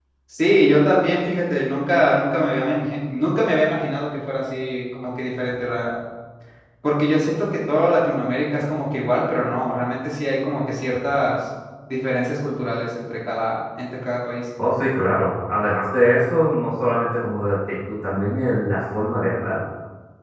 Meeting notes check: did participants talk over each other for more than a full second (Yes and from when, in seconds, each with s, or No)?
No